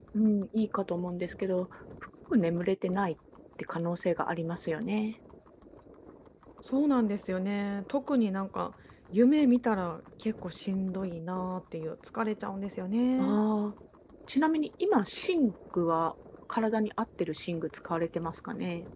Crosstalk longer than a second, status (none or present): none